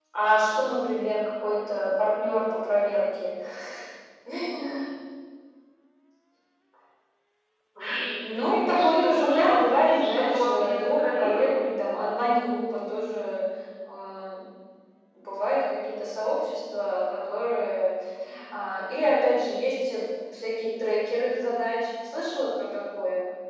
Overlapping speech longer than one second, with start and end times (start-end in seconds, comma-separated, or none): 8.5-11.6